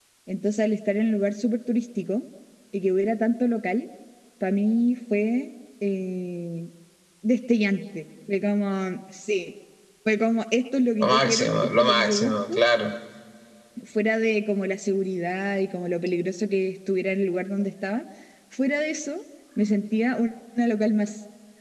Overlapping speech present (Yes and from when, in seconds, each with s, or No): Yes, from 11.0 s